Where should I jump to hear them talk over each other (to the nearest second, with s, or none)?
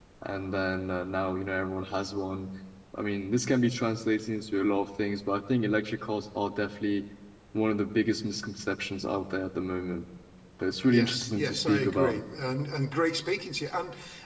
11 s